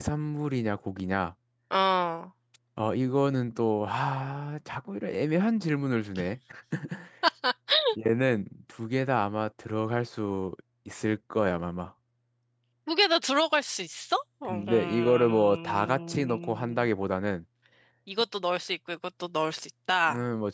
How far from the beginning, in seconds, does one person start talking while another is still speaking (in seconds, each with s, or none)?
14.4 s